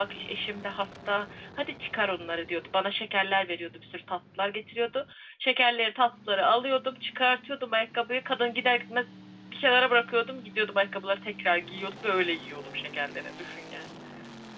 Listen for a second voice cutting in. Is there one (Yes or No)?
No